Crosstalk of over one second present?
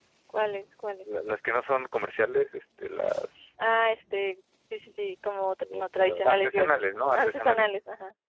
Yes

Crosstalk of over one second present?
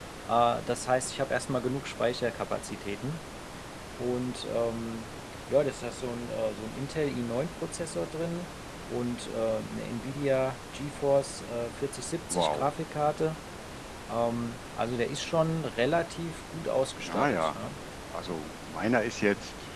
No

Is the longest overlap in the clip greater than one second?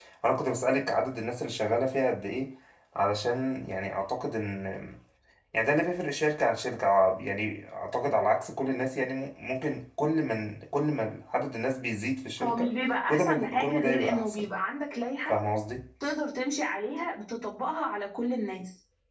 Yes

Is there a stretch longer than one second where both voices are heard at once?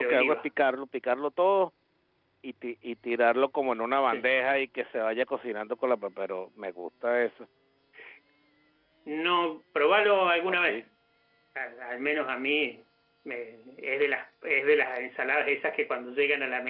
No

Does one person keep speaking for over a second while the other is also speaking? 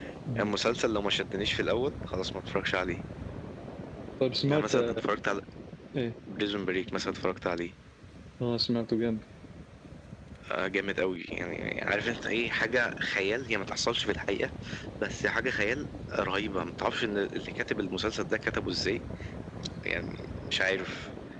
No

